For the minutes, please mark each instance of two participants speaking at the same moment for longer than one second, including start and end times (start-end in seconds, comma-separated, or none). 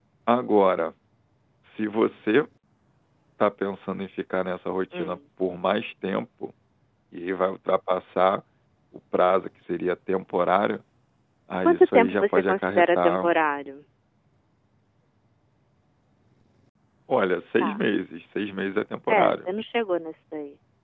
11.6-13.3